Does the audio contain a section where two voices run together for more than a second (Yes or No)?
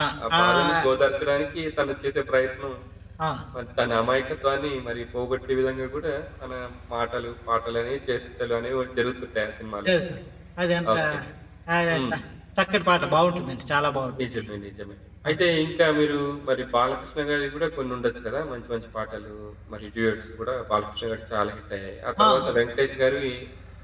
No